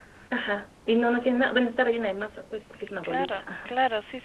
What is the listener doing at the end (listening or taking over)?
taking over